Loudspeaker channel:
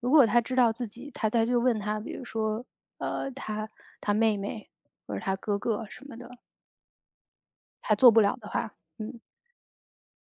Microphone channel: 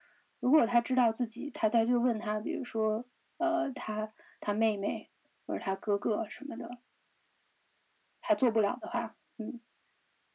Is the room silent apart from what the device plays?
Yes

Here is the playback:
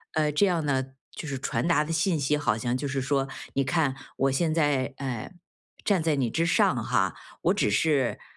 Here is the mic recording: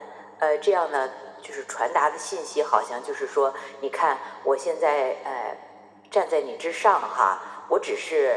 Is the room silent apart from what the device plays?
Yes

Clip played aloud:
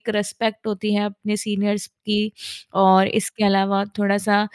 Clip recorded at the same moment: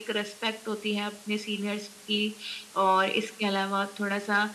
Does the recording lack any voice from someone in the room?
Yes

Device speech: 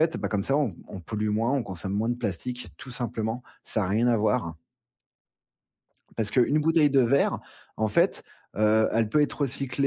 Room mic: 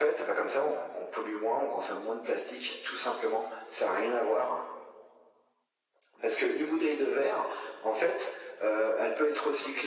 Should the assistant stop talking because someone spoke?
No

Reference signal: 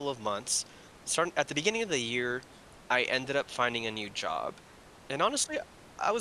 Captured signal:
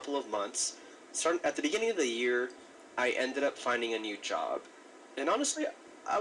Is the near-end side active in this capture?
No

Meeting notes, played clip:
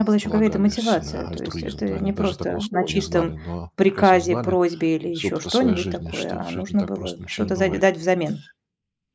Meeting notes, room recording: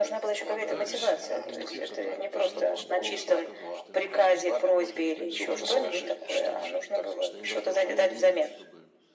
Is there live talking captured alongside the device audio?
Yes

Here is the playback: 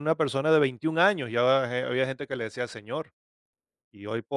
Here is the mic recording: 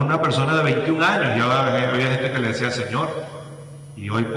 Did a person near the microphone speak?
No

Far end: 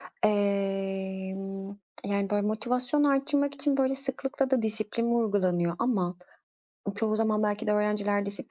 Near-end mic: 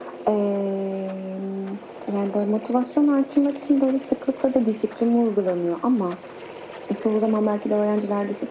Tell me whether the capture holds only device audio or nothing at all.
Yes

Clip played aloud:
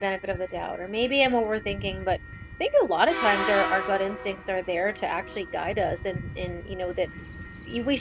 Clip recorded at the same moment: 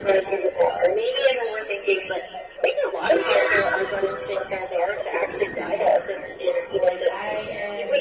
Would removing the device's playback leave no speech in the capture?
No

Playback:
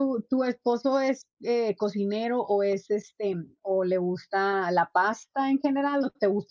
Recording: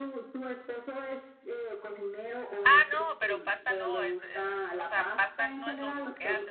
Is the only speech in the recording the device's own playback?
No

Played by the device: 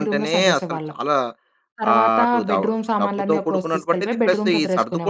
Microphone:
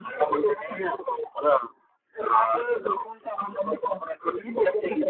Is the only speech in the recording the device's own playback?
Yes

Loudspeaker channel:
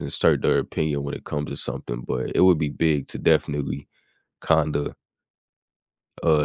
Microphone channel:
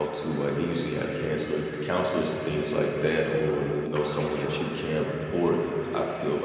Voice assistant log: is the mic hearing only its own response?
No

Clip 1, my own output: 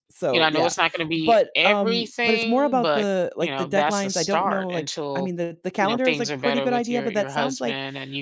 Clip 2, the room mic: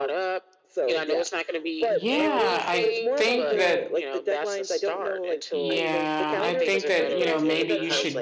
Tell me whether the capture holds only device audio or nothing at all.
No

